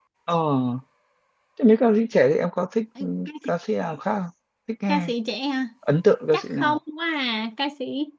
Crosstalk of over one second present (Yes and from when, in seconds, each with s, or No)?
No